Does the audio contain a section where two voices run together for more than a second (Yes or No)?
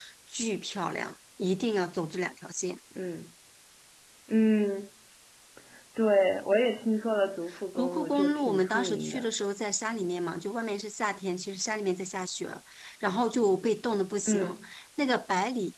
Yes